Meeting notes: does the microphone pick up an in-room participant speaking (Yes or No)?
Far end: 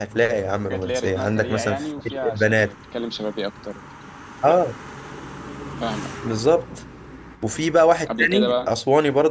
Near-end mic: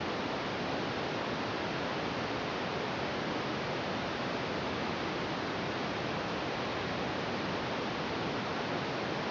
No